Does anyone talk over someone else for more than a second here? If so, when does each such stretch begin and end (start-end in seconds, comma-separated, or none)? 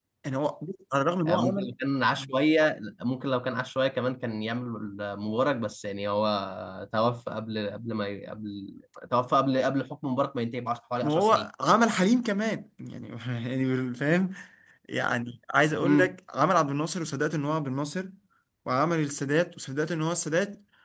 none